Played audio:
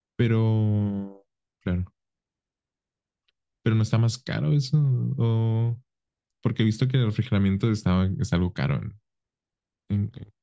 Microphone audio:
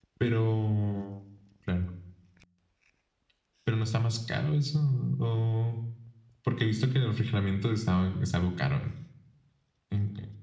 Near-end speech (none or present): none